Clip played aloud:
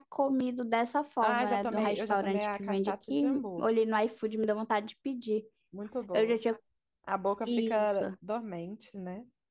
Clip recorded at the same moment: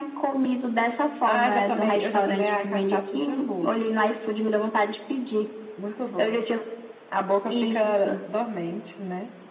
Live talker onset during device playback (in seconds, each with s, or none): none